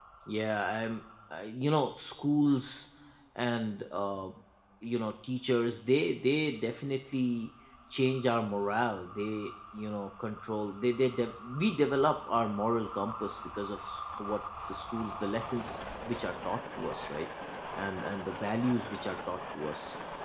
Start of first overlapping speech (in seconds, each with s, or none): none